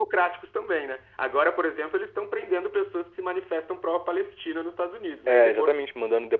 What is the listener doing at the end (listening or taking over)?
taking over